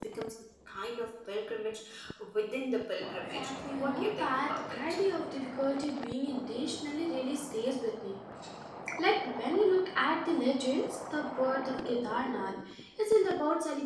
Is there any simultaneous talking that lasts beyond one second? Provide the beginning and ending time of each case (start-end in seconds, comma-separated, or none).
3.3-4.8